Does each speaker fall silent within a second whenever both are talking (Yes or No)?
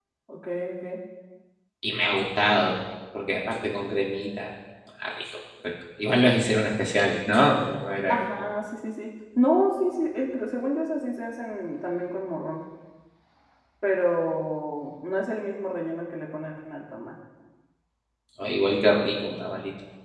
Yes